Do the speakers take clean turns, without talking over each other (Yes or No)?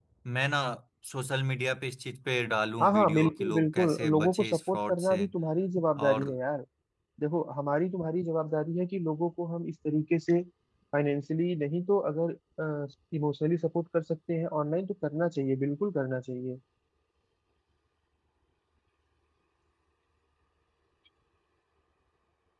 No